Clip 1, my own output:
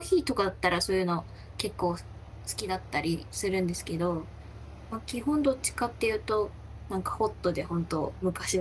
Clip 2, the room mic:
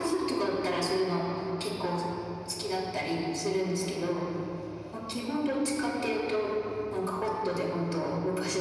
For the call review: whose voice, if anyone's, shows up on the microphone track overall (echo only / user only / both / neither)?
echo only